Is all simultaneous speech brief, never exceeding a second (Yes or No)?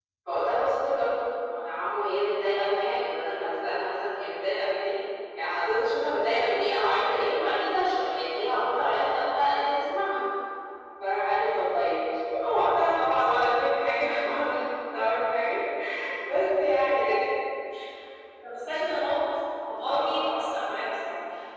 Yes